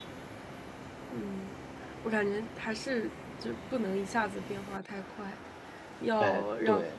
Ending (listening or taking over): listening